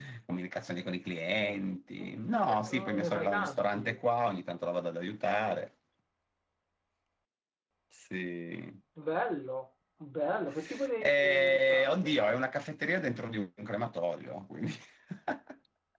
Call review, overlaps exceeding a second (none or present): present